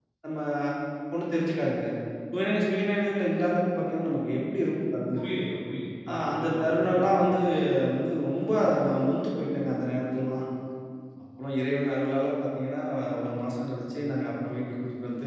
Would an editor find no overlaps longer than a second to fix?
No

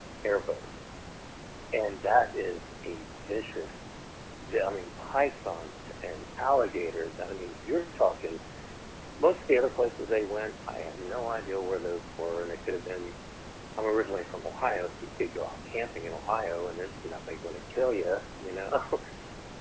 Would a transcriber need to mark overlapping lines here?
No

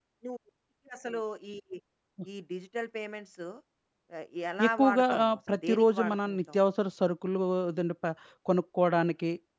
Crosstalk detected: Yes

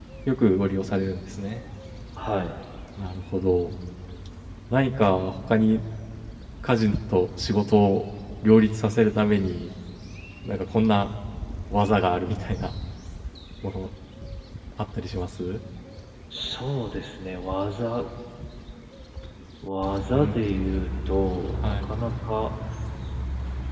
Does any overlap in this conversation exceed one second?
No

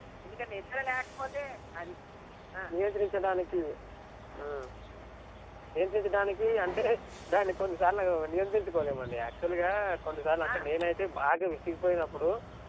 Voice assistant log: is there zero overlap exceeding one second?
Yes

